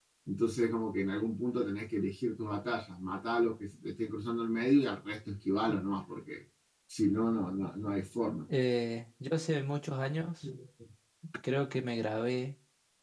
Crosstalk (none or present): none